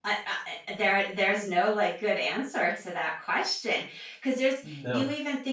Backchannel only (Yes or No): Yes